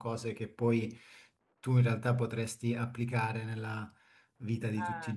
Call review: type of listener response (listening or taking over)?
listening